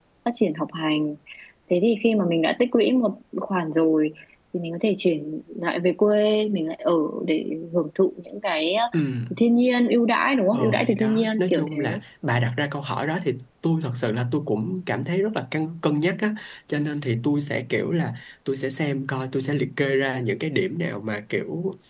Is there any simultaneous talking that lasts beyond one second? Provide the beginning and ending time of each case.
10.5-11.8

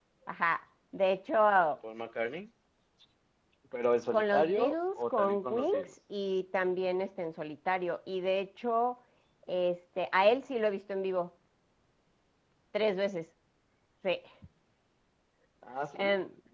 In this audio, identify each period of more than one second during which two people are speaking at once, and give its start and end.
4.1-5.9

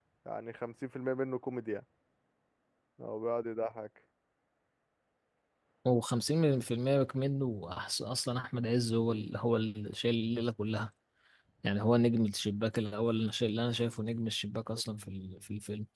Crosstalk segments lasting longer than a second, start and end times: none

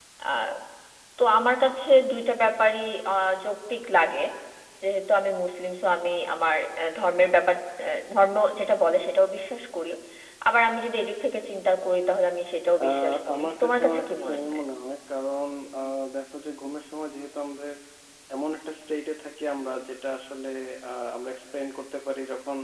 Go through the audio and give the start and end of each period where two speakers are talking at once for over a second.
12.8-14.6

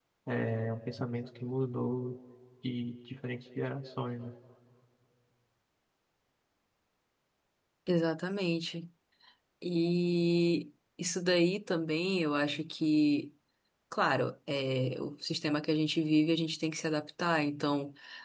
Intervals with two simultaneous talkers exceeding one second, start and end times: none

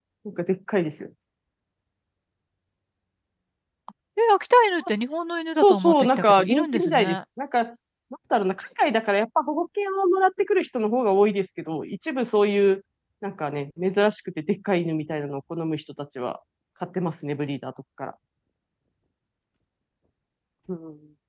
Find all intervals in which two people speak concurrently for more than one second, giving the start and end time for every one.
5.6-7.2

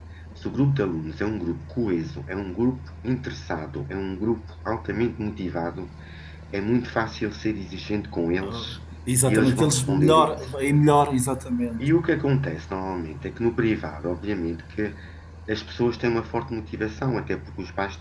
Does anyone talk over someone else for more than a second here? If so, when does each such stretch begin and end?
9.2-10.5

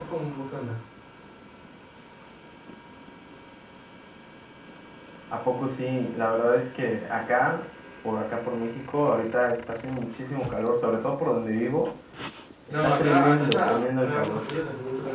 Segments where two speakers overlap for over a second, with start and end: 12.7-14.4

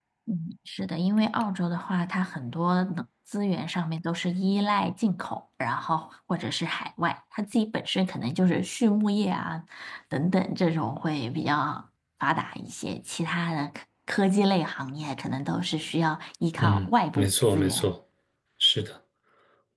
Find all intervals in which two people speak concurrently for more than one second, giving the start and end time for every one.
16.6-17.8

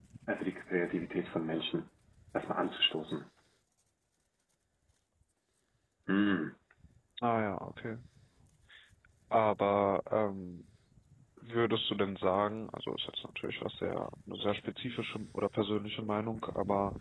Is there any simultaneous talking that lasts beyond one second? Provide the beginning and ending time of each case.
none

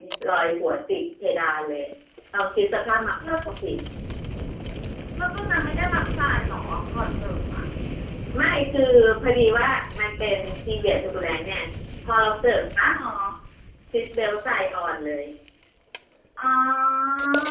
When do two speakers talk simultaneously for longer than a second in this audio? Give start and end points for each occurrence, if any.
none

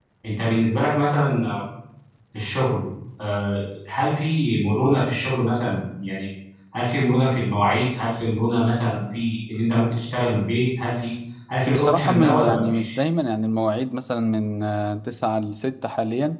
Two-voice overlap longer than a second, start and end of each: 11.7-12.9

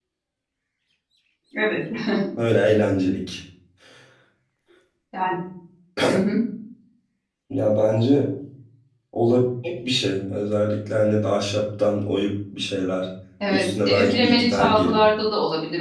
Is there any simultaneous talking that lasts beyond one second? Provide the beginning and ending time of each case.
13.5-15.0

